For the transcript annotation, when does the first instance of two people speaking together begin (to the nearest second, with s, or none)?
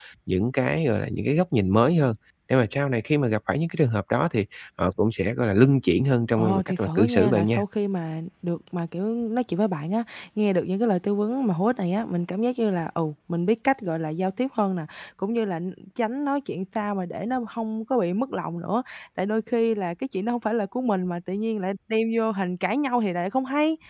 6 s